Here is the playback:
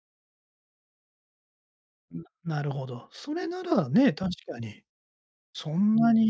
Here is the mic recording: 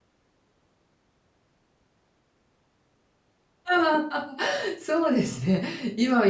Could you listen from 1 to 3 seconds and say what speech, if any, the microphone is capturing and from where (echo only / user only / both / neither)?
neither